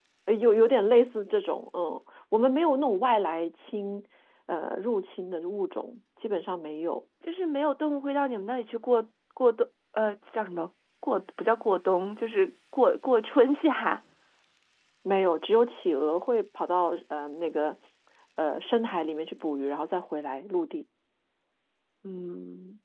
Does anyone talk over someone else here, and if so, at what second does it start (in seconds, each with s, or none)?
none